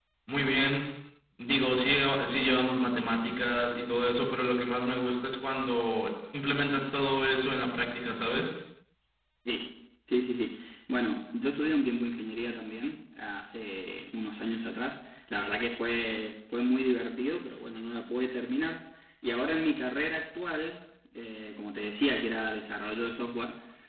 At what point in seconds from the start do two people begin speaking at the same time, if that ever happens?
none

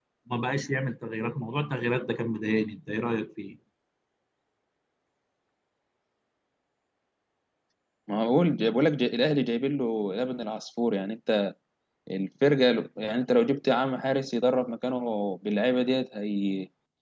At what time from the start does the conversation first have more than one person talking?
none

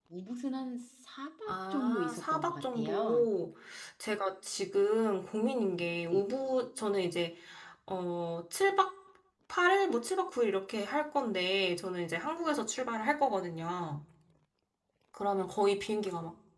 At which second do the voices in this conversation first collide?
1 s

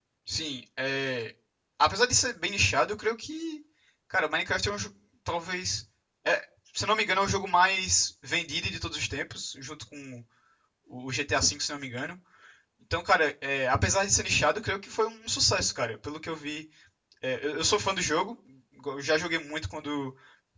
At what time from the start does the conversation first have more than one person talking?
none

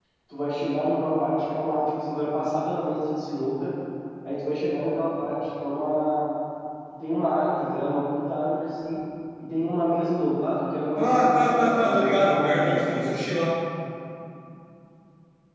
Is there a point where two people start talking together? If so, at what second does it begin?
11 s

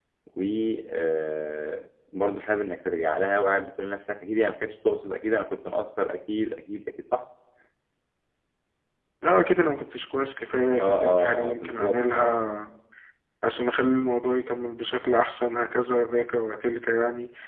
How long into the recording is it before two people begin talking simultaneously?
11 s

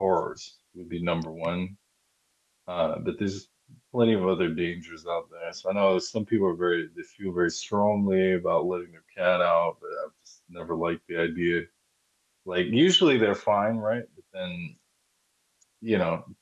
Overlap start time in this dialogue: none

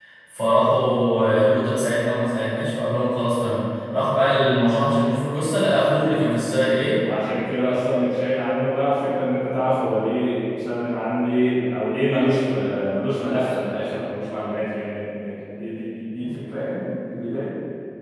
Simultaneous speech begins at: none

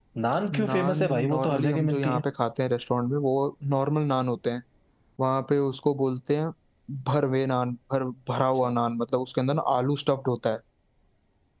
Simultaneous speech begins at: 1 s

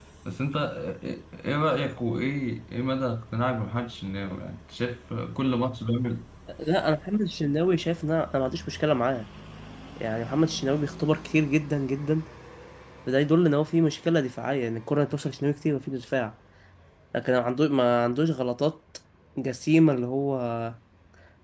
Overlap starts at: none

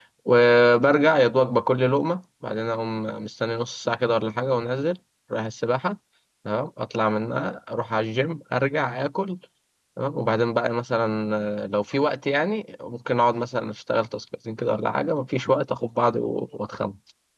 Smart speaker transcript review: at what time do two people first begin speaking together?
none

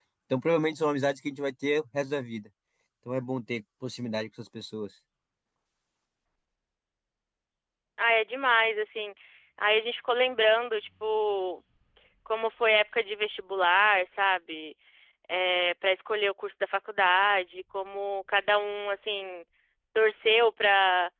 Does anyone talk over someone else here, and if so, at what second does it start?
none

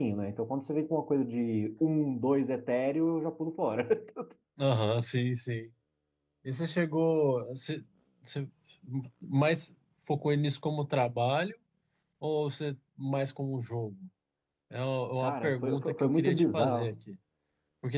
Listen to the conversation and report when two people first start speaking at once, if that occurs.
15 s

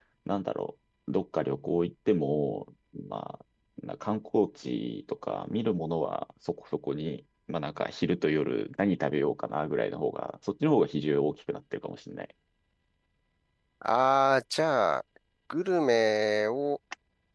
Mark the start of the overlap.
none

